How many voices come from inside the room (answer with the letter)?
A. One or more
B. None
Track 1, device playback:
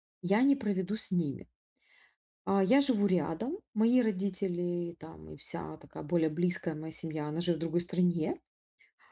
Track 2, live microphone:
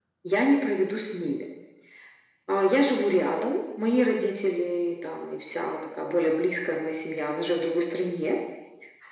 B